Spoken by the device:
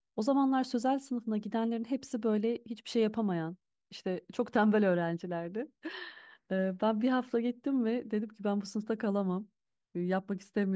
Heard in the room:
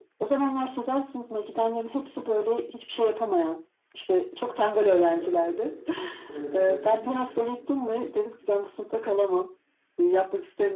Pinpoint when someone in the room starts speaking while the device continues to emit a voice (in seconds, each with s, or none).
5.0 s